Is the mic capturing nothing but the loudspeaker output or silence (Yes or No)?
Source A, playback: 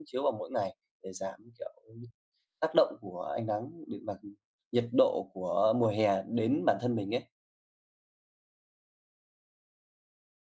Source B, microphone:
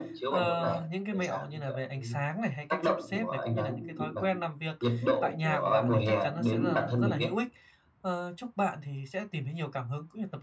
No